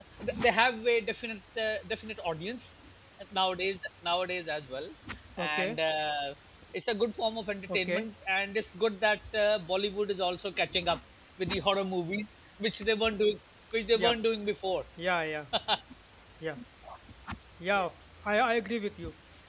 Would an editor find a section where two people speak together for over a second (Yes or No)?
No